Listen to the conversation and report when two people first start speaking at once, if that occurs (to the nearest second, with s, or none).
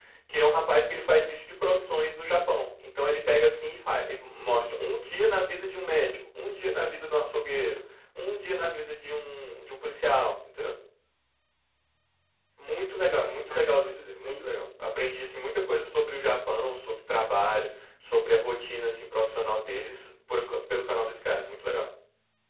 13 s